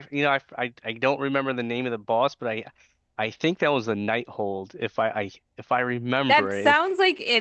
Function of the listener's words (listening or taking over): taking over